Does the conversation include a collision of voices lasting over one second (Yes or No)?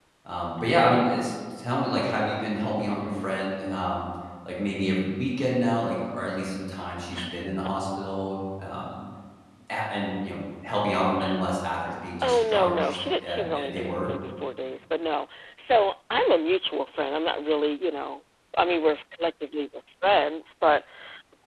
Yes